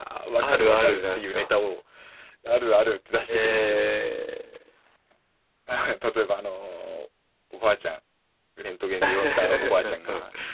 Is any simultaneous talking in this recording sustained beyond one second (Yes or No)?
Yes